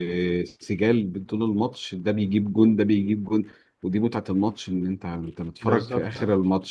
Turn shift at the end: No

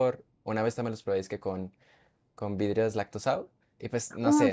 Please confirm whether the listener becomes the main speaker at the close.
Yes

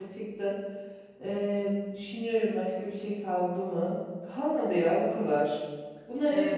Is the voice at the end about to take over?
No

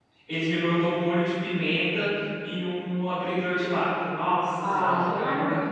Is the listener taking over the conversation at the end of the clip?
Yes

